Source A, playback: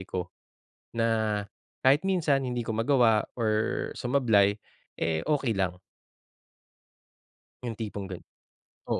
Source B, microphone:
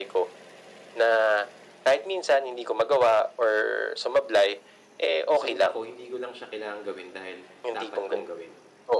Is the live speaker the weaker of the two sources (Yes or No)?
Yes